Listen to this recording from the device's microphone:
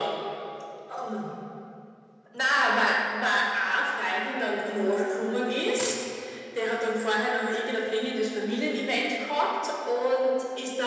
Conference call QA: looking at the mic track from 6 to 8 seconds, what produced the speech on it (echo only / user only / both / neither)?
echo only